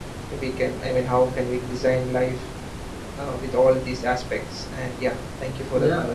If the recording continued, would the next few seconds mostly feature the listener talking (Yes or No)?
Yes